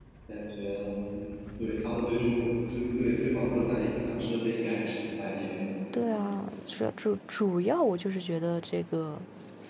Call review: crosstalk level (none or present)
none